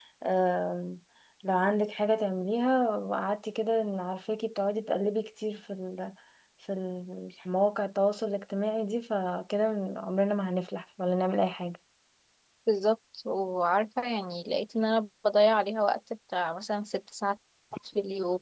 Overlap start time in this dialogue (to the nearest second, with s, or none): none